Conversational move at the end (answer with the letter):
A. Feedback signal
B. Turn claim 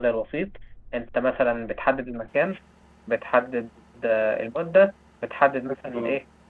A